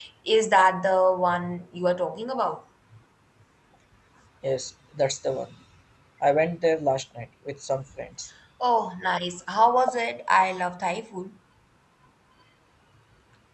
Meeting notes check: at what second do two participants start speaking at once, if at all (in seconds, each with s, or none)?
none